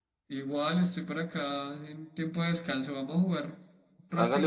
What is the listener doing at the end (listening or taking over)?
taking over